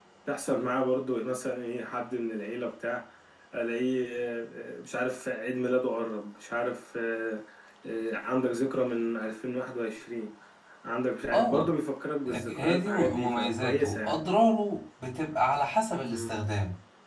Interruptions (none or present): present